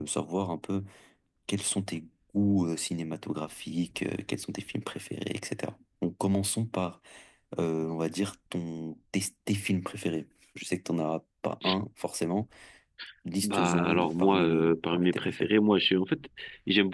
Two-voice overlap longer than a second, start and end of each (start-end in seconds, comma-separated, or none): 13.4-15.5